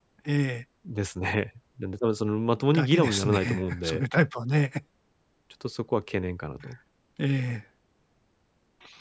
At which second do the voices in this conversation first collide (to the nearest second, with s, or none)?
3 s